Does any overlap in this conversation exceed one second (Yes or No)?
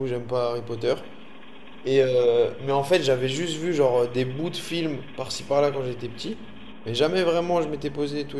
No